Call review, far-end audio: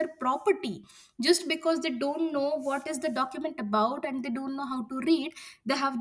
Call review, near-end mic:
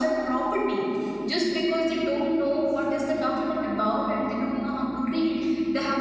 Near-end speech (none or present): none